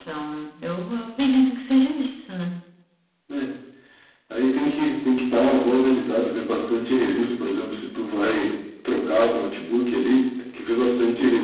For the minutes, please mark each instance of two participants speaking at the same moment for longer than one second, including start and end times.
none

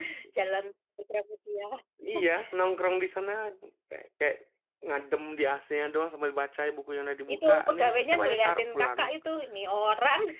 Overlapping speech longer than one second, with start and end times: 7.3-9.0

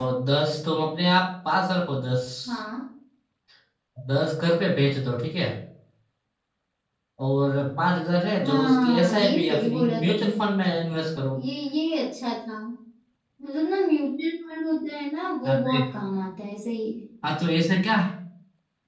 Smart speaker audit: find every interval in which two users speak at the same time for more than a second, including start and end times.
8.4-10.3

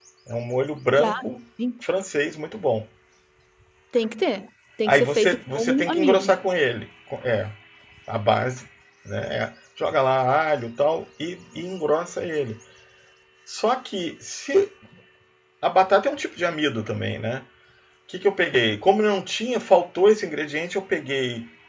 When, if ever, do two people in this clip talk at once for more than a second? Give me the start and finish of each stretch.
4.8-6.4

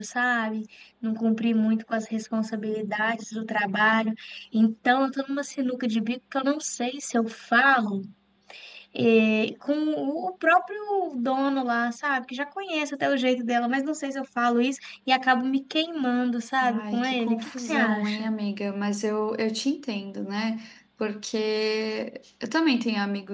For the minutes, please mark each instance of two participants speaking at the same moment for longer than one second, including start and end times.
16.6-18.3

